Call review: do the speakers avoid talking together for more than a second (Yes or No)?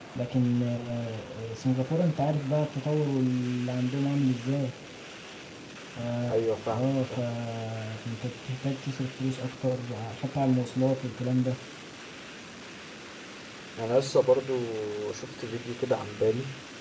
Yes